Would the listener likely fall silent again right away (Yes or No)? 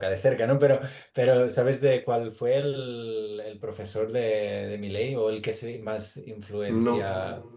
Yes